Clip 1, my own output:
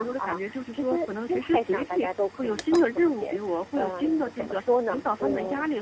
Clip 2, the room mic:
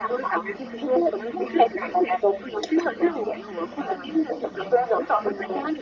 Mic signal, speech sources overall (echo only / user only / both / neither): both